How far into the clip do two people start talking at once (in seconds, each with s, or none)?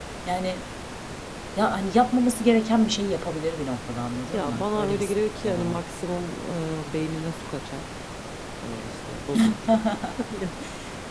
4.3 s